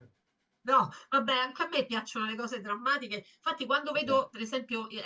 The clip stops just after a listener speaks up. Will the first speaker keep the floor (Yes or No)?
Yes